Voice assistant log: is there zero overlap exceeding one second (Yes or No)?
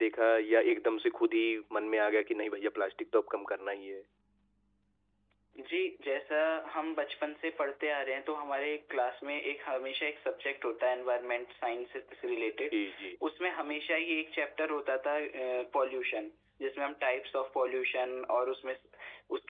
Yes